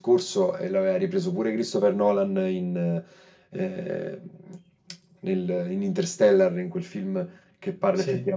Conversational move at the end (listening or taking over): listening